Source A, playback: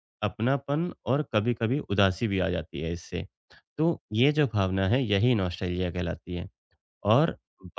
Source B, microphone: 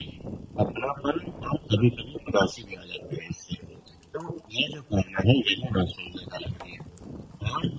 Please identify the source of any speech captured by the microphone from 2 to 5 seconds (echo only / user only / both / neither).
echo only